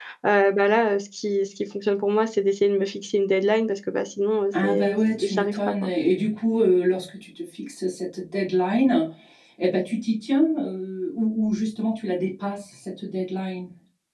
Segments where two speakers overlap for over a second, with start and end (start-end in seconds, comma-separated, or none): 4.6-5.9